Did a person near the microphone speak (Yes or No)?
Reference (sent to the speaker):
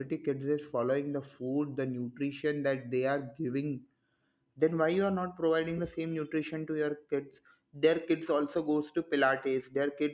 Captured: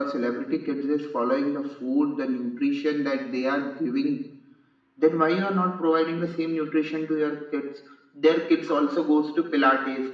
No